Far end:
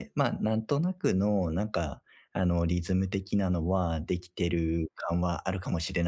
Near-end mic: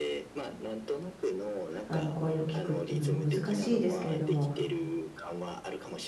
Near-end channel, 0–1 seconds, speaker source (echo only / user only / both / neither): echo only